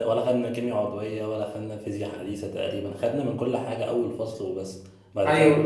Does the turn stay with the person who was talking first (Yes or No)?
No